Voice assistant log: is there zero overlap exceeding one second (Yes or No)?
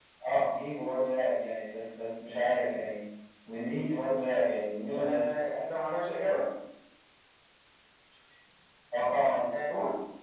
Yes